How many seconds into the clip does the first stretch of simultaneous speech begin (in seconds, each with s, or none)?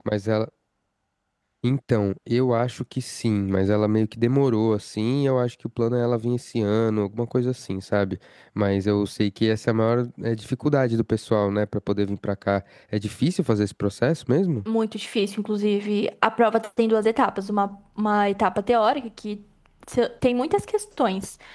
none